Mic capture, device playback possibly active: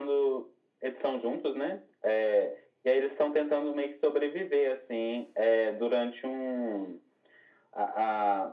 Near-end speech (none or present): none